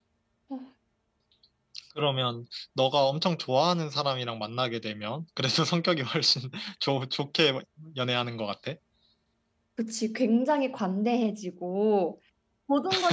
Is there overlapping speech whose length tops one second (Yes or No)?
No